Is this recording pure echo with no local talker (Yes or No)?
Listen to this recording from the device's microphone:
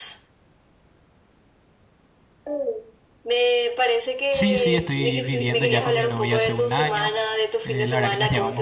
No